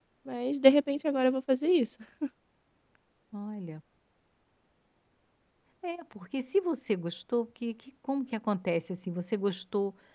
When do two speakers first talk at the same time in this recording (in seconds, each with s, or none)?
none